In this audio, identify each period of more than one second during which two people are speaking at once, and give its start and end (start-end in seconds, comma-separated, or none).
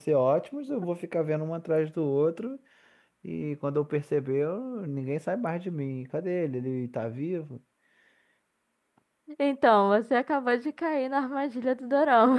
none